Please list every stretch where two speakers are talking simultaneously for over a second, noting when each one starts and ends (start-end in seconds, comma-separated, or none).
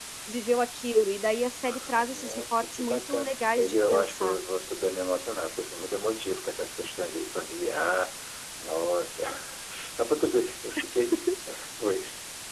1.6-4.4